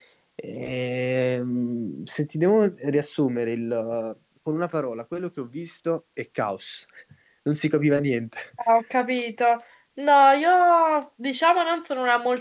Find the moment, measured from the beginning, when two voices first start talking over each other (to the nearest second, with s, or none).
none